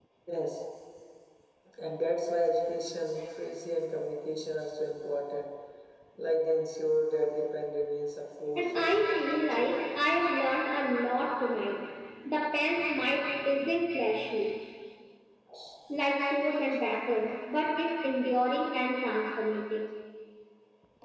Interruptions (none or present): present